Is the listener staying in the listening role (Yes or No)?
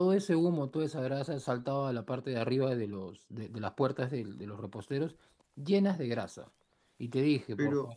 Yes